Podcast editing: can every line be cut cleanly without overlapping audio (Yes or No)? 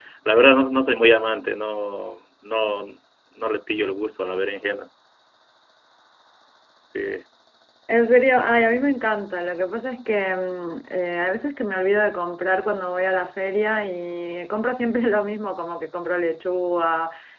Yes